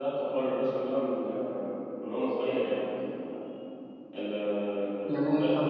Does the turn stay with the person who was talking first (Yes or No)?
No